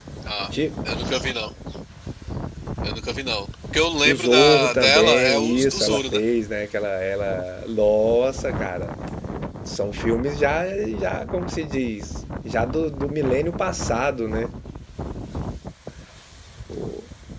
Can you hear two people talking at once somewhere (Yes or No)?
Yes